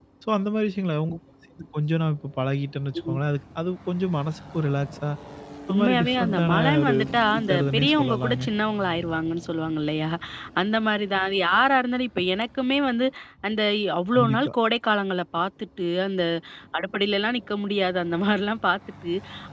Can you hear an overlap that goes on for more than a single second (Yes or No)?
Yes